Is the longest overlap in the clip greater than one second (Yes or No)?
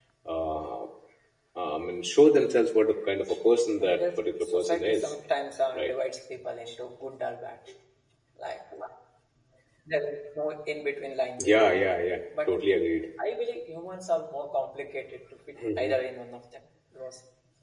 Yes